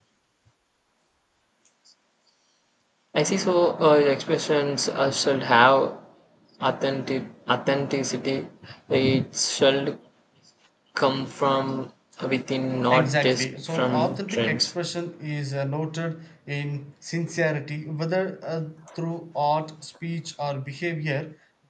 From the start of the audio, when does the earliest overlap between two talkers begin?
12.9 s

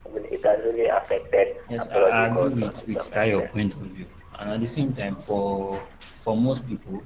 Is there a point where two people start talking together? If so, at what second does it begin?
1.8 s

